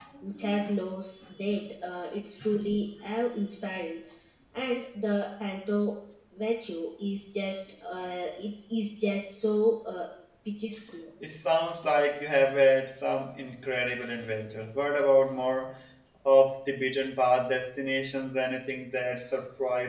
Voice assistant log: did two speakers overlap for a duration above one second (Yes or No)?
No